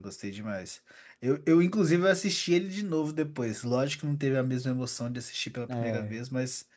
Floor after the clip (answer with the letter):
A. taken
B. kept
B